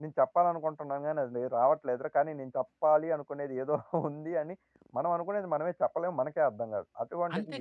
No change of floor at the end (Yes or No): No